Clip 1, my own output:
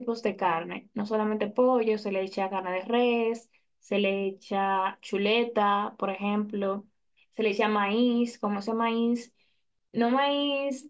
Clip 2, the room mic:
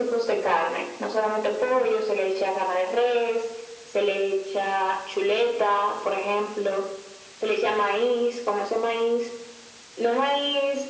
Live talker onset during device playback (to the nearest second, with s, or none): none